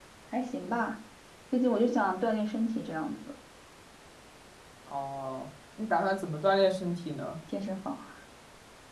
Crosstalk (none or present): none